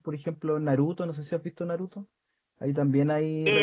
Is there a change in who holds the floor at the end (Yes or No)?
Yes